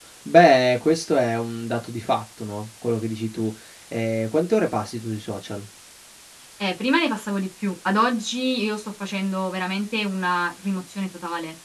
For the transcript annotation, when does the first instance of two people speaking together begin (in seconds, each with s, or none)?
none